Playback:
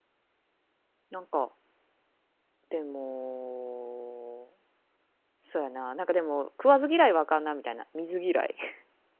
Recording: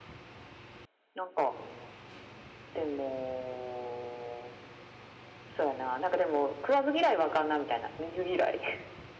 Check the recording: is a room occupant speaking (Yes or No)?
No